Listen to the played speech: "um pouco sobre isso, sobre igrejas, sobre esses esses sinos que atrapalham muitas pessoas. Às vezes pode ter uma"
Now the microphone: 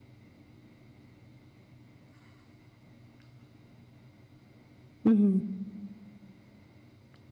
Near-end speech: present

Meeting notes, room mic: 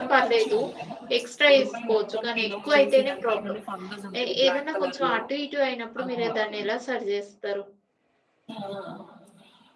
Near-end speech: present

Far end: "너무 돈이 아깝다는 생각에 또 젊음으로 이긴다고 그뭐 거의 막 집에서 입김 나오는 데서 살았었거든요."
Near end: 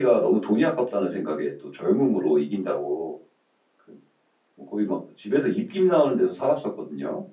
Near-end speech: none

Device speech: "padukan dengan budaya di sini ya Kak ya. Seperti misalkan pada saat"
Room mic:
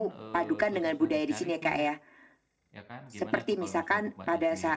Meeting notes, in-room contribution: present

